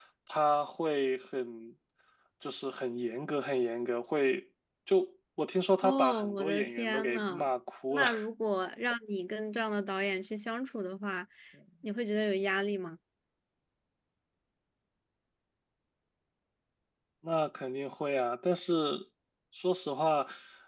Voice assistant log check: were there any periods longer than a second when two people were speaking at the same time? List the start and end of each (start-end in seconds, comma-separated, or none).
5.8-7.5